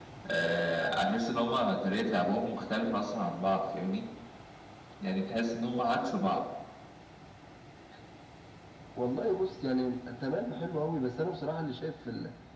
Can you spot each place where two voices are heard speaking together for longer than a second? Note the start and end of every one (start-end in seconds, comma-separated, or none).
none